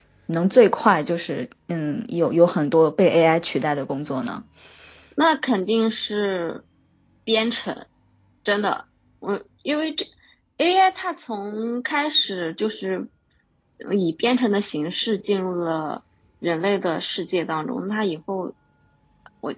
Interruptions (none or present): none